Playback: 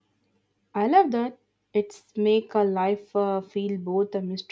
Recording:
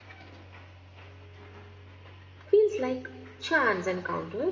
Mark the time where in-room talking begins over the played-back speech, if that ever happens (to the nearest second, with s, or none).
2 s